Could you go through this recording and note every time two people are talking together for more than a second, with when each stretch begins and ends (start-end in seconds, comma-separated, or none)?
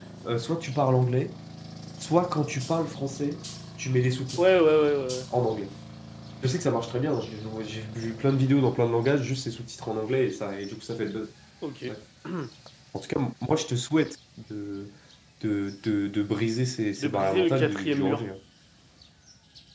17.0-18.2